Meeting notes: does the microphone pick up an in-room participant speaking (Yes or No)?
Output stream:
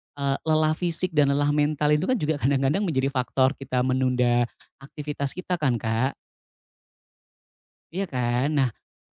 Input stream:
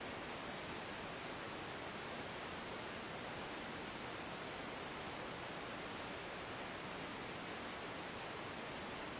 No